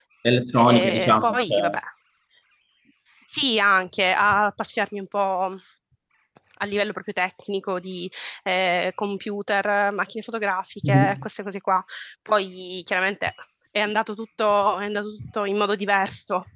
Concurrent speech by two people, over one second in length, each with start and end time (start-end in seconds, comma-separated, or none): 0.6-1.8